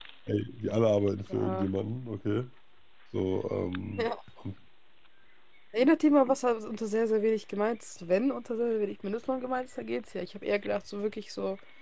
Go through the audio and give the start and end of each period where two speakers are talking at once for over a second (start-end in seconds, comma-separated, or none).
none